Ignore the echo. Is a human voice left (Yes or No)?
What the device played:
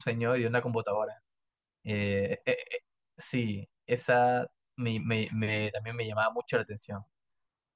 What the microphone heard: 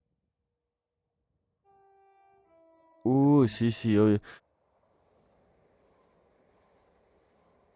Yes